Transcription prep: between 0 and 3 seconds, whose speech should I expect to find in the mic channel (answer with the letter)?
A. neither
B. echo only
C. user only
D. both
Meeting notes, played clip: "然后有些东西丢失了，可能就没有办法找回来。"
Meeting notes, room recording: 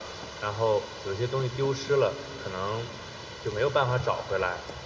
B